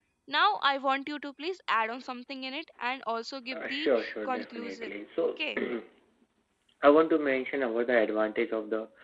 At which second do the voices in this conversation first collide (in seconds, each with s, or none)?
3.5 s